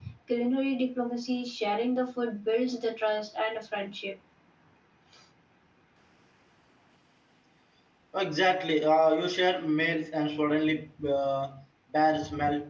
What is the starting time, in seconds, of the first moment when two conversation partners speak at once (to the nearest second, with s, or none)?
none